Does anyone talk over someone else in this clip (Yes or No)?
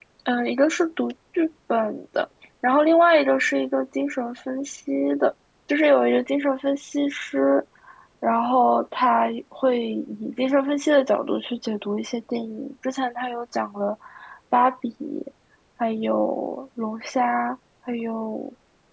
No